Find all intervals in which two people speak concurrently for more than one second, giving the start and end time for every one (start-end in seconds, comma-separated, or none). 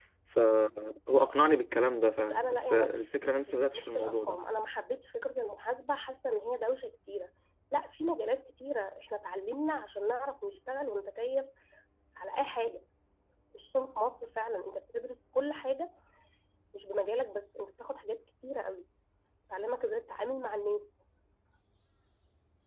2.1-4.4